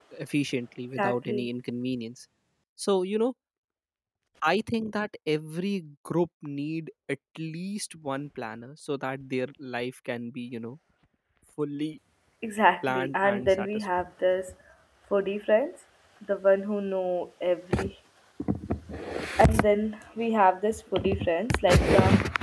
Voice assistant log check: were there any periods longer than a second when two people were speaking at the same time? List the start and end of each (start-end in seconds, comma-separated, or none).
12.8-14.1